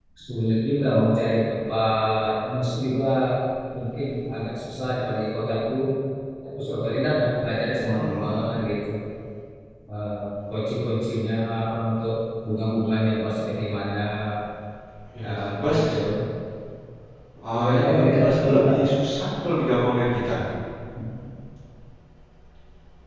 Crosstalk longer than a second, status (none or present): present